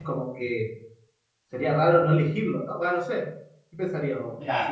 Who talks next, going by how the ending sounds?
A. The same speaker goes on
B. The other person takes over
B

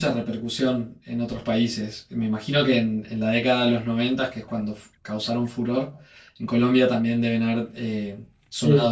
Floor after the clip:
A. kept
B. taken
B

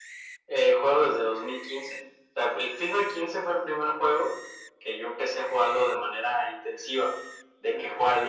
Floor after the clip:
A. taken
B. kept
B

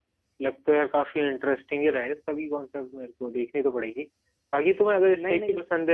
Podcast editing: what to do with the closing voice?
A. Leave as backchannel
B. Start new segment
A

